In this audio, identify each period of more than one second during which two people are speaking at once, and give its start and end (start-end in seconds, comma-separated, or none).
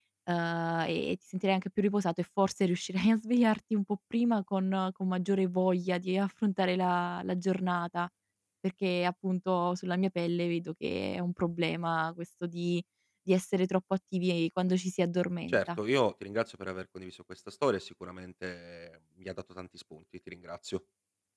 none